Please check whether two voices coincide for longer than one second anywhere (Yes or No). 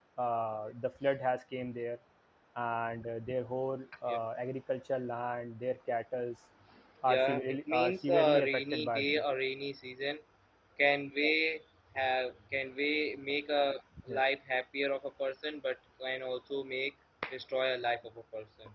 Yes